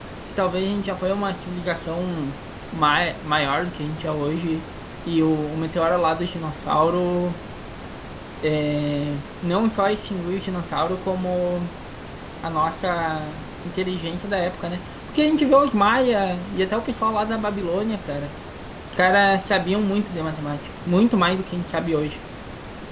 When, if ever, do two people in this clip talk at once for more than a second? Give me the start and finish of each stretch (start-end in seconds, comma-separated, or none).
none